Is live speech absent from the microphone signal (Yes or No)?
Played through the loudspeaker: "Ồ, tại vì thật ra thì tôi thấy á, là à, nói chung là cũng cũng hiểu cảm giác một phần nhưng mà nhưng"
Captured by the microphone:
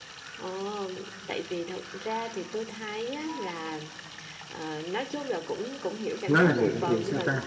No